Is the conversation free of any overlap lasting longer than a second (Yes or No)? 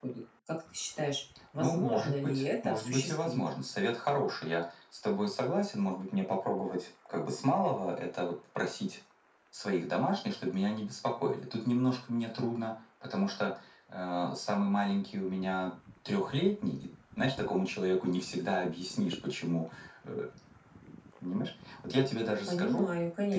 No